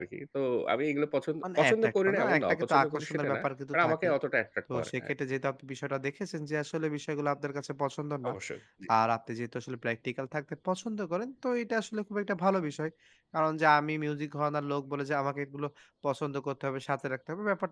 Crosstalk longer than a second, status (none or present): present